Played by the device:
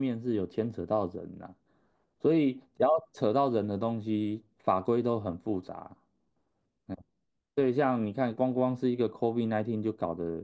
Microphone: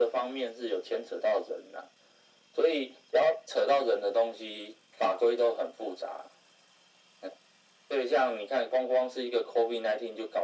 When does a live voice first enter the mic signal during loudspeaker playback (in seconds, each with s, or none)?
none